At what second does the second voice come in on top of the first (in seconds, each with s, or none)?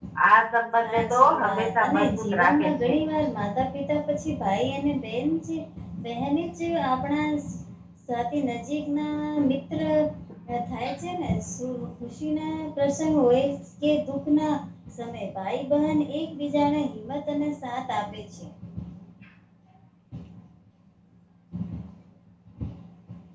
0.8 s